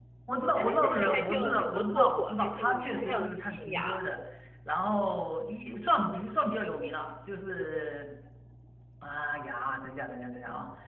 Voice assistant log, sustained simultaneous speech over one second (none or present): present